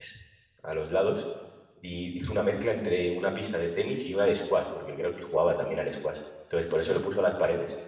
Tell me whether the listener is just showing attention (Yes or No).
Yes